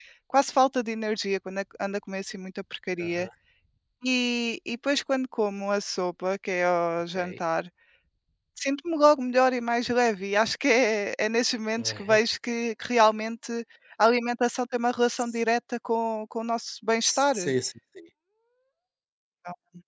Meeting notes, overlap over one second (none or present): none